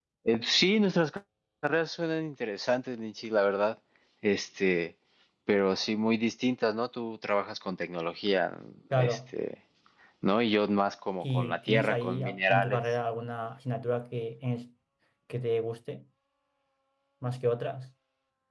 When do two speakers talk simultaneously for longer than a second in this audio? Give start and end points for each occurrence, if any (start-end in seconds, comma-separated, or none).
11.2-12.8